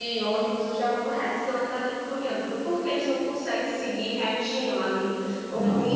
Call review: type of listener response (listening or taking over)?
listening